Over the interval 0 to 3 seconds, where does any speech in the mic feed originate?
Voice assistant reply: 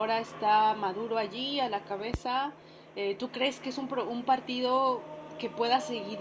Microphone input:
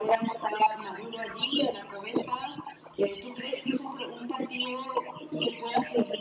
echo only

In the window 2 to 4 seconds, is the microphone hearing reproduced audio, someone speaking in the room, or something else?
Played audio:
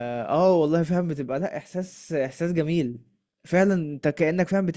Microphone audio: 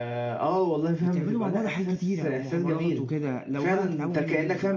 both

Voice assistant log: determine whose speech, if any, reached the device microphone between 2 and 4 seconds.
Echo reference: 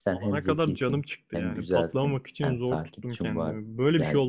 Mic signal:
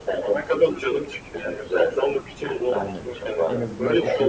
both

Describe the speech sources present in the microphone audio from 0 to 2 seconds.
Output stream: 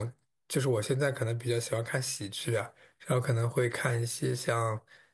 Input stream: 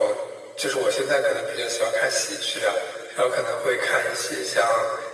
echo only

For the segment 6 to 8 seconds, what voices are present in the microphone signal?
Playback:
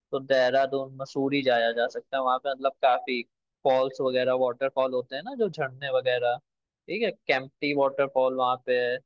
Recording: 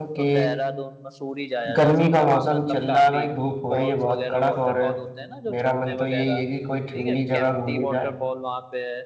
both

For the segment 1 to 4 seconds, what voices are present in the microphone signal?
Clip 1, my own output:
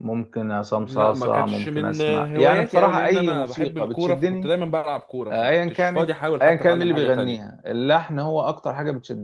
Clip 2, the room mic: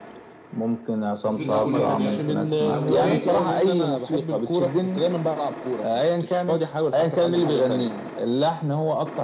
both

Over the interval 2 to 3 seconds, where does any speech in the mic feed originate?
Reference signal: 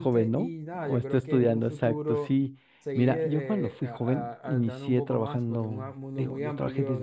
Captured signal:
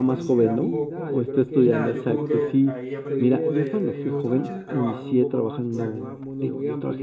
both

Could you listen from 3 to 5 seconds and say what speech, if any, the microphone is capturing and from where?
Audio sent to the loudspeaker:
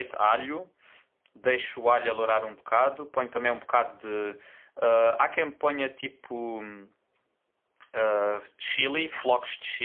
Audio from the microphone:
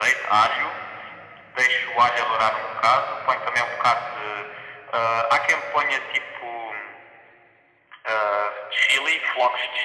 echo only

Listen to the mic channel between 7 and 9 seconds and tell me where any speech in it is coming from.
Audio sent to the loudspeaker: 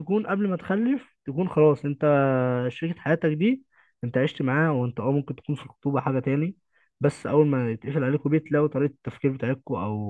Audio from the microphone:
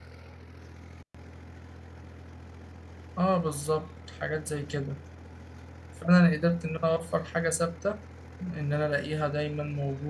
user only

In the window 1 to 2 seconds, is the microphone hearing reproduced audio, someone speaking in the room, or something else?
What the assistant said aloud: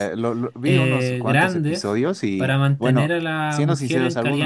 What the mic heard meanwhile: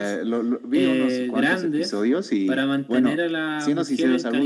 echo only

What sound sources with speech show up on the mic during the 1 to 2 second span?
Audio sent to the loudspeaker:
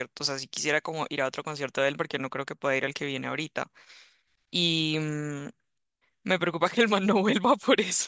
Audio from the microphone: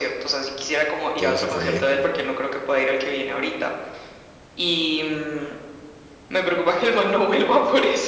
both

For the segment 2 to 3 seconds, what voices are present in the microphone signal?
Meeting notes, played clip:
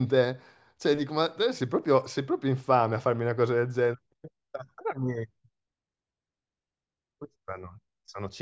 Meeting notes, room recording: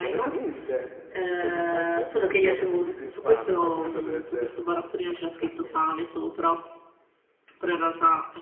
both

